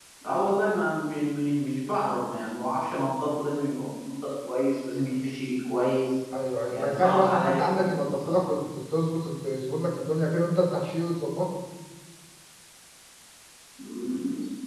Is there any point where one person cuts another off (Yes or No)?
Yes